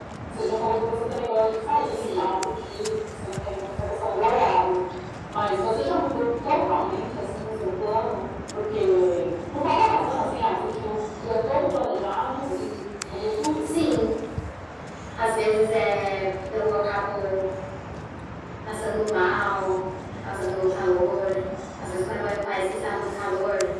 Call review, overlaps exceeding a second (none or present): none